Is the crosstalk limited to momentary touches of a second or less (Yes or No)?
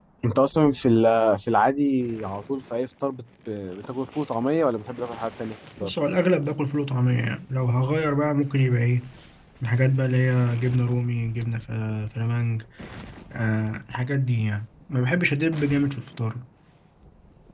Yes